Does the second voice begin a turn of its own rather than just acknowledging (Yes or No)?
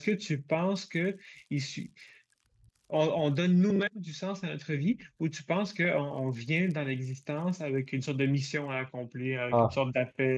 No